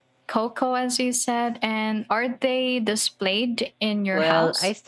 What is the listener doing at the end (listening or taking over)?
taking over